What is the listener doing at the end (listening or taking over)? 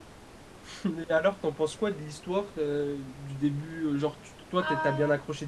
listening